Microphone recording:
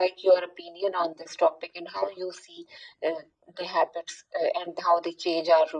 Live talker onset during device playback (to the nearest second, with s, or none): none